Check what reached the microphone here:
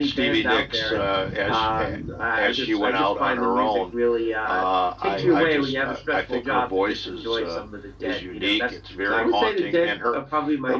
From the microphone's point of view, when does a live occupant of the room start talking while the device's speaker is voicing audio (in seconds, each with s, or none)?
5.2 s